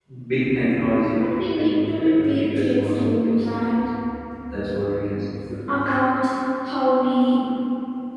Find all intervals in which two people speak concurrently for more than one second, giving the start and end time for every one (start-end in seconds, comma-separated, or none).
1.1-3.5